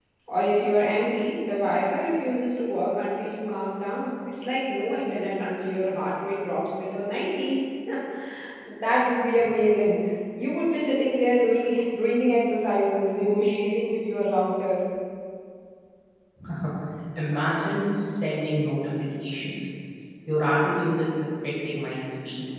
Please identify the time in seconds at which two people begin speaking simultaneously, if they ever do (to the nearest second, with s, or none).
none